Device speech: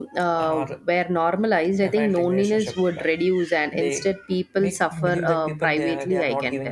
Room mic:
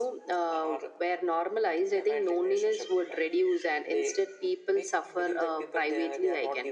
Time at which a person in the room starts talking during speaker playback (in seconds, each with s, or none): none